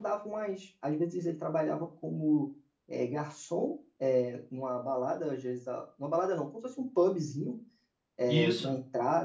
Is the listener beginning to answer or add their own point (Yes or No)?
No